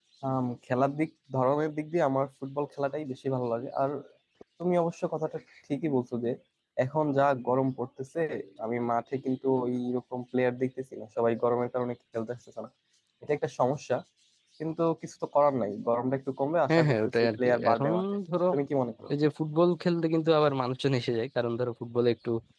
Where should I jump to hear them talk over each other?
16.7 s

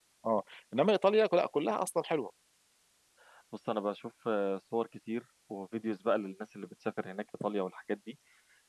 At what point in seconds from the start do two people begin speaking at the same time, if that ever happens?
none

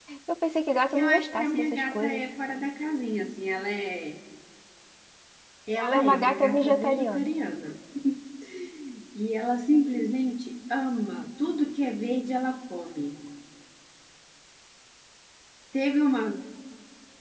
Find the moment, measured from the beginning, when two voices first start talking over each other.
0.9 s

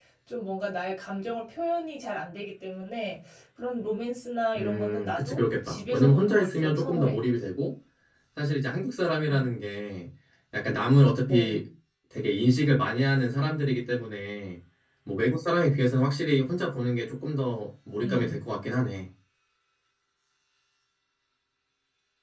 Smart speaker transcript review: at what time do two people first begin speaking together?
4.6 s

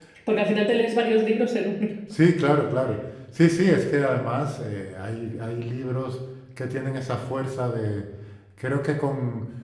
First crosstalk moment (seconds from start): none

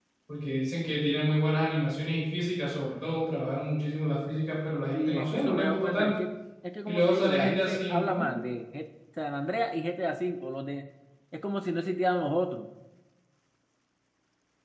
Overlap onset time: 4.9 s

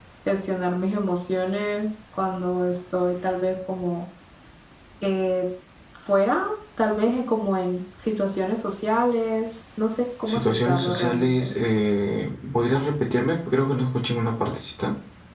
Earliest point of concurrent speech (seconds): 10.3 s

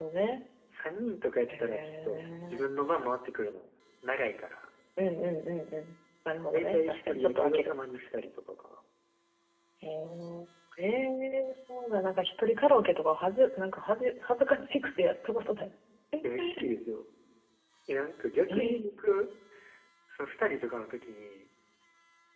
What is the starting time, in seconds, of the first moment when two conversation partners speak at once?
1.5 s

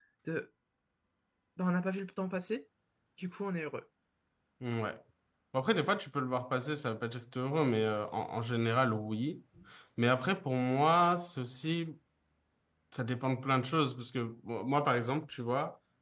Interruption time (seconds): none

